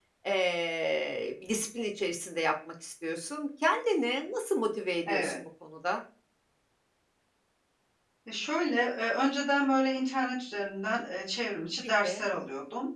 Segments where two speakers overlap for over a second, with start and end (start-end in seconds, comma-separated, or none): none